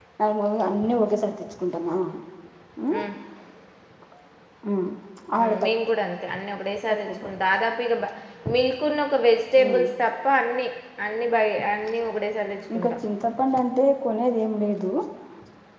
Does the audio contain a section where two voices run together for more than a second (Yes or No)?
No